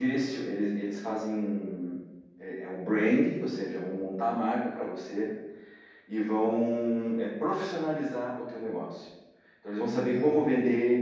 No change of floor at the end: Yes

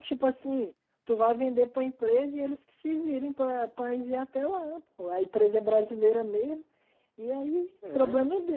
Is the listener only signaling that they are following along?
Yes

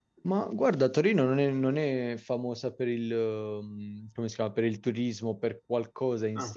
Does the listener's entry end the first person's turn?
No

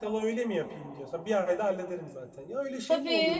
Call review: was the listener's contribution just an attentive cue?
No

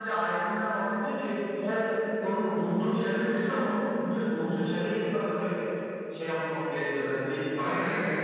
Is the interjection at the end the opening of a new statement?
Yes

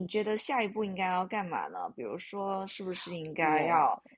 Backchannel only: Yes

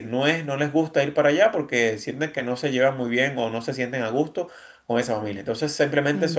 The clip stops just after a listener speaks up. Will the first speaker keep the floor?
Yes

